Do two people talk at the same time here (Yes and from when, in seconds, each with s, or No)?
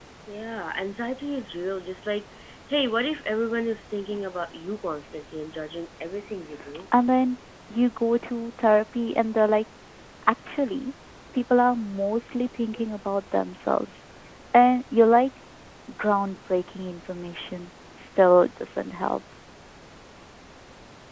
No